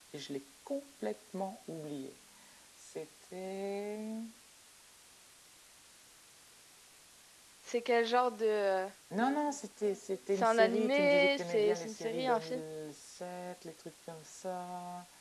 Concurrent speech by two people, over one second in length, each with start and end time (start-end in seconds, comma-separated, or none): 10.4-12.6